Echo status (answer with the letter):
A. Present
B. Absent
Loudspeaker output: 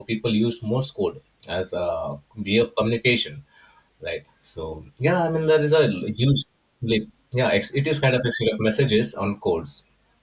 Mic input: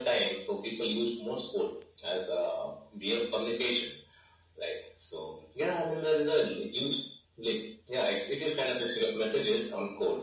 A